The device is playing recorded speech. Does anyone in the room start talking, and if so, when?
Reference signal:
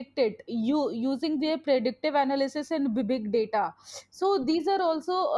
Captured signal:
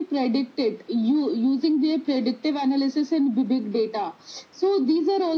none

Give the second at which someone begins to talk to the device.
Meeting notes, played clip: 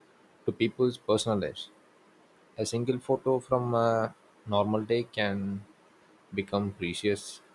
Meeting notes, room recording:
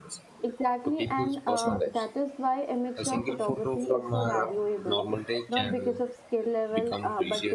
0.4 s

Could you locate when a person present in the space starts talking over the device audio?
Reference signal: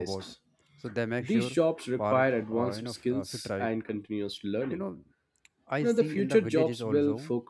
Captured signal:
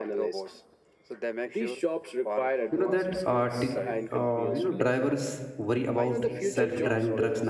2.7 s

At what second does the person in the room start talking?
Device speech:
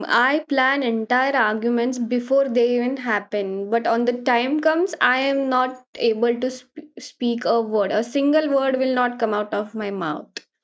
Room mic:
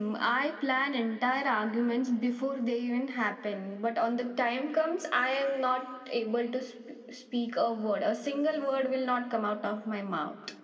none

